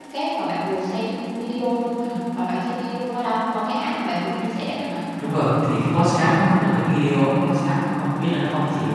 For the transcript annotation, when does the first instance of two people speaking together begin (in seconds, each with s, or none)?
none